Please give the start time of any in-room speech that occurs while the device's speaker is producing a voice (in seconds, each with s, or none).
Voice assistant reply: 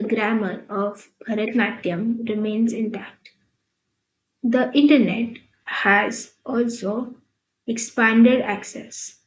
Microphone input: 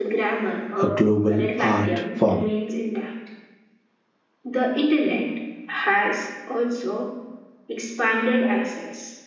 0.8 s